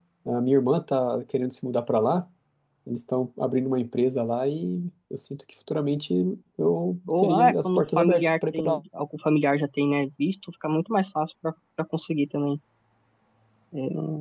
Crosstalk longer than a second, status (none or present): present